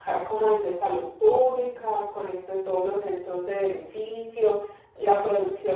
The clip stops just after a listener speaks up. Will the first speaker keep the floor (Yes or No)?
Yes